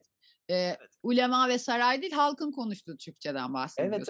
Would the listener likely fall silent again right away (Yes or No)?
No